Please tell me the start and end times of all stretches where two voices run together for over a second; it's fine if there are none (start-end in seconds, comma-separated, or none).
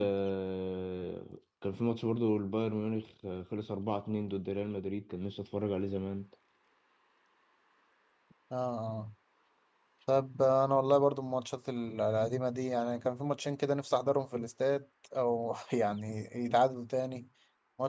none